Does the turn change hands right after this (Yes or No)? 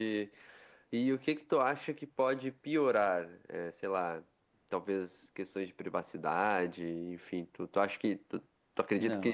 Yes